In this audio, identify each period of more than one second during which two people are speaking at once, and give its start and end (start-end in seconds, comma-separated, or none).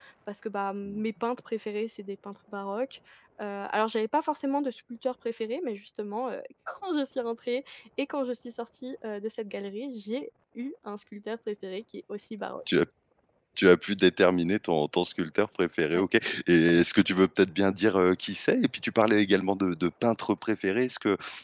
none